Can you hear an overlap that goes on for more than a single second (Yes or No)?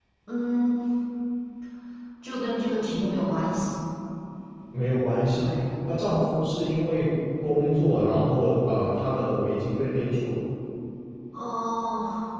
No